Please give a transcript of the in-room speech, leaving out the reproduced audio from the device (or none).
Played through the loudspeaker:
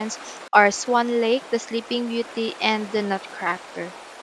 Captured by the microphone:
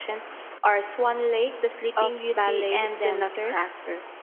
of ballet dancers.